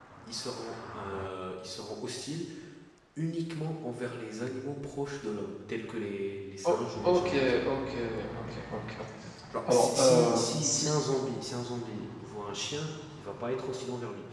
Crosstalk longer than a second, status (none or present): present